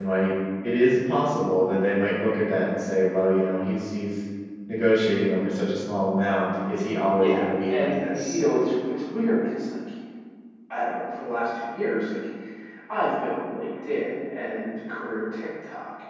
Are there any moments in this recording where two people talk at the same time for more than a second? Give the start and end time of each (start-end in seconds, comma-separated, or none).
7.2-8.4